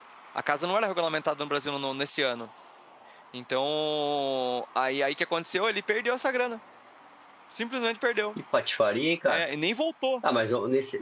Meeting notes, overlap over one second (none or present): none